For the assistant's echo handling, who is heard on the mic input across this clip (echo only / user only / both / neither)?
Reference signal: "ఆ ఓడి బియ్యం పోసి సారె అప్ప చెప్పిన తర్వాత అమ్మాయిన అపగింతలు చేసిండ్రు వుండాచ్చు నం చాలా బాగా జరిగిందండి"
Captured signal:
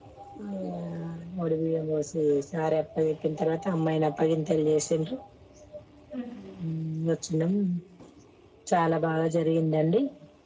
both